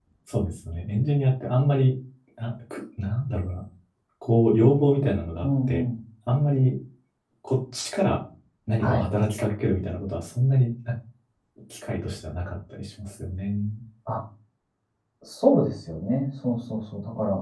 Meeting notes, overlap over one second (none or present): none